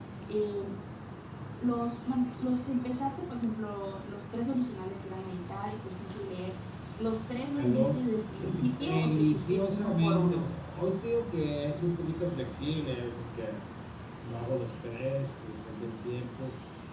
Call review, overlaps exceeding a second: present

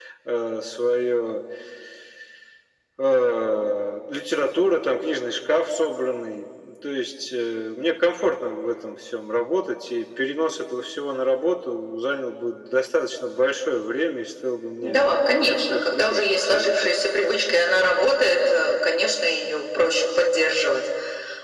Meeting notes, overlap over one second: present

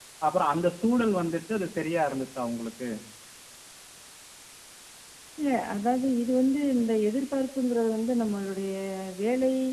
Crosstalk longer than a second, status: none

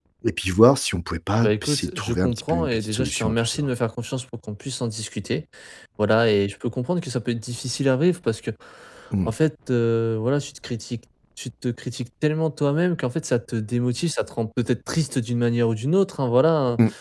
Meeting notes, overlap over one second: present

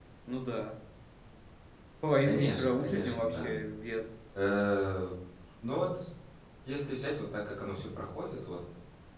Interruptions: present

